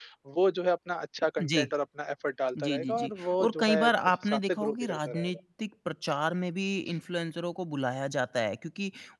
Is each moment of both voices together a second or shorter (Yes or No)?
No